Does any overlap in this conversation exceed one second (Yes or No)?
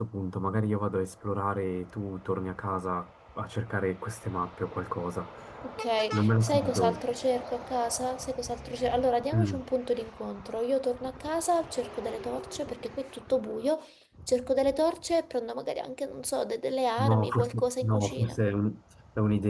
Yes